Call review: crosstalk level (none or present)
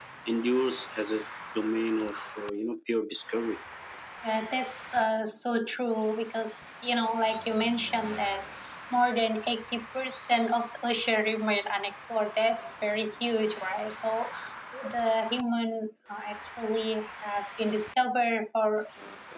none